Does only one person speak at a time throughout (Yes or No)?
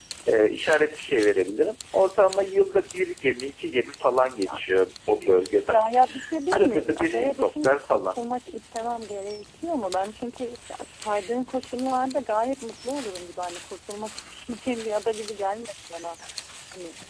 No